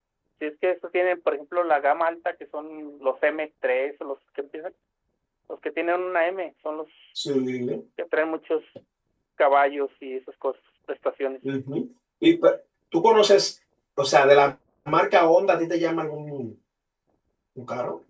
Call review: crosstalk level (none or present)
none